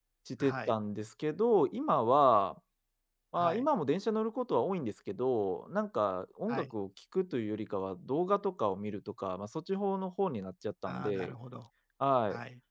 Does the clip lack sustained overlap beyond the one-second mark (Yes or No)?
Yes